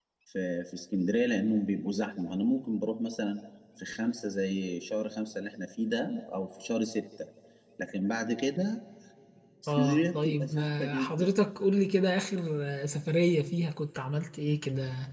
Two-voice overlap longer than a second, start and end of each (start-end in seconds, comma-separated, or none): 9.7-11.3